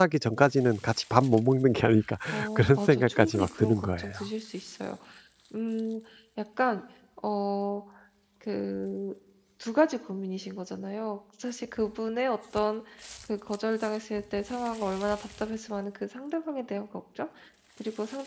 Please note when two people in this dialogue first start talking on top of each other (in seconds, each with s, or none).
2.6 s